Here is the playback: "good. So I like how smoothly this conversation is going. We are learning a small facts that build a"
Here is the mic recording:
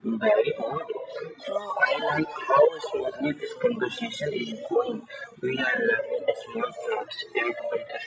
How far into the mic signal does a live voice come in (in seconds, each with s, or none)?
none